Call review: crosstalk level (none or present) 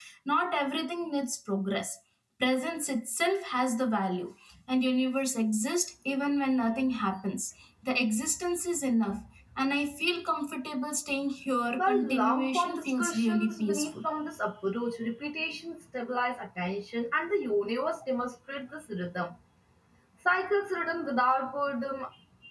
present